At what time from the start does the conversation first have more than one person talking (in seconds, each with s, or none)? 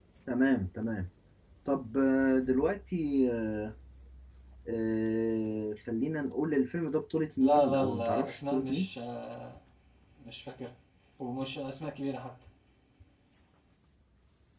7.4 s